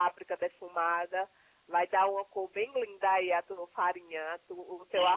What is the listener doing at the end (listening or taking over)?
taking over